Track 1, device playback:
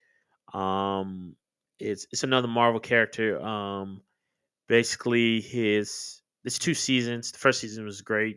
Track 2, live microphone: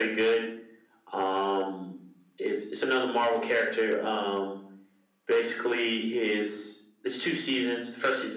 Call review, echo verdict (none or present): present